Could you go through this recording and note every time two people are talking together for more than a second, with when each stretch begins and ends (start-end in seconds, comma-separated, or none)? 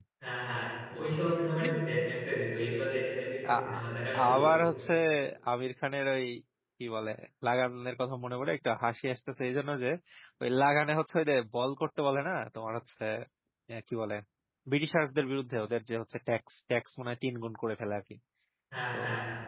none